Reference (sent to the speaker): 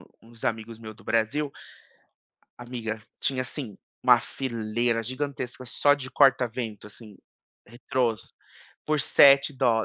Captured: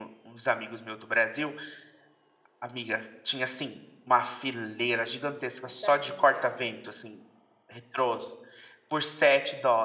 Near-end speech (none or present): present